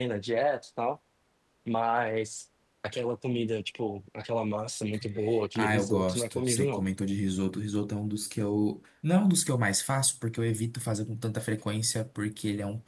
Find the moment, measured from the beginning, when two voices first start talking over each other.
5.5 s

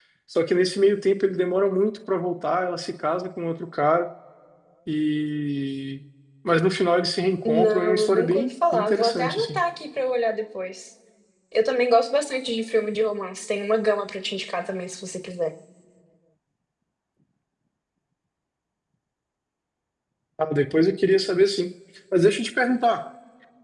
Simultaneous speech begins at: 7.5 s

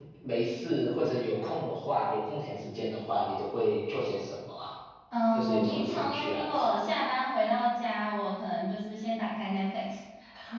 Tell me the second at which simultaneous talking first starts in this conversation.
5.3 s

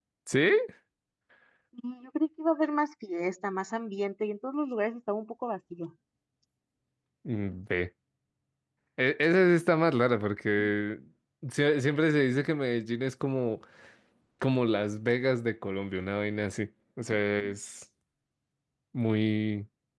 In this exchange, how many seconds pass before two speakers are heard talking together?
none

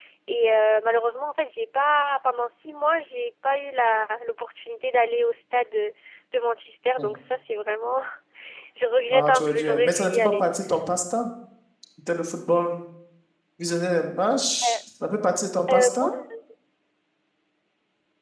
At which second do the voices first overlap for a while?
9.1 s

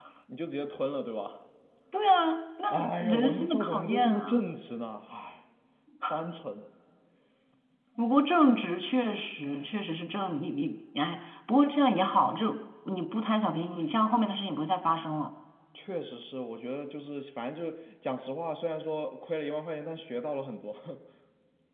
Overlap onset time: 2.7 s

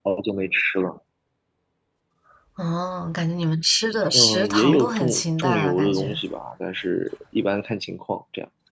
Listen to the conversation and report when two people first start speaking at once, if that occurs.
4.1 s

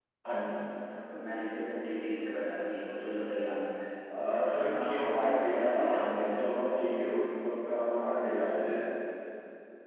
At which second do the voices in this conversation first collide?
4.7 s

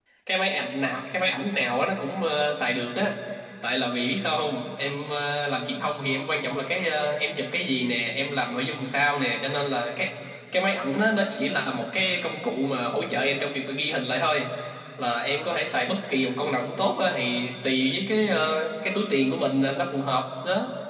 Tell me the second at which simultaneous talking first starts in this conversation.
none

